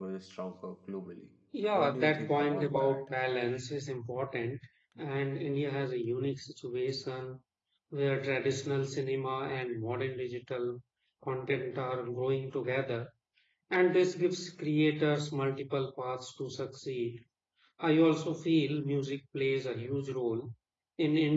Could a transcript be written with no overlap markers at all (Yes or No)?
No